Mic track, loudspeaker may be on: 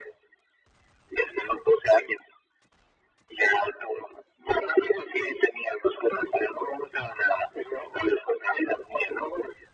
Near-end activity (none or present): none